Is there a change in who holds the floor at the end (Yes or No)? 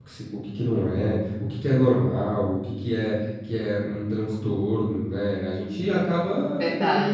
No